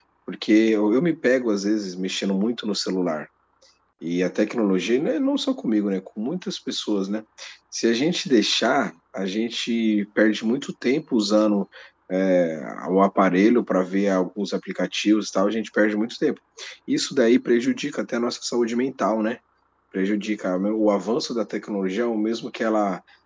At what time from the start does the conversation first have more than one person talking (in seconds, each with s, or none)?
none